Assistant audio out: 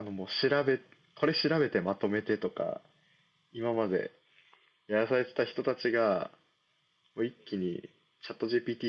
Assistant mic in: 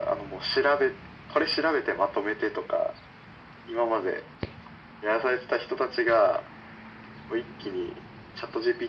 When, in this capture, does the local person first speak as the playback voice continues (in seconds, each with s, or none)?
none